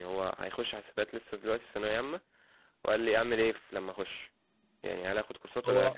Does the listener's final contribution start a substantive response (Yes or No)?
No